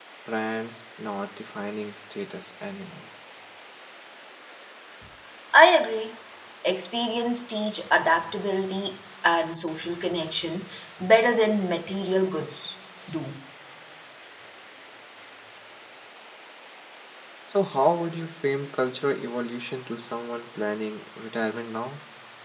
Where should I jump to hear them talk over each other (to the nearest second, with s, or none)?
none